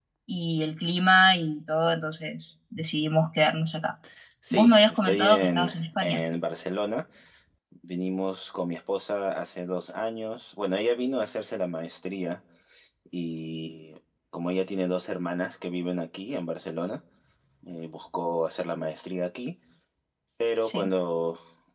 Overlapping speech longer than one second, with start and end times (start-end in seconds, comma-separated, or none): 4.5-6.2